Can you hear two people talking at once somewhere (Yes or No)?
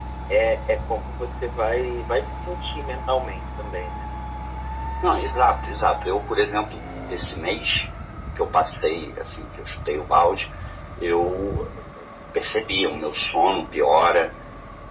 No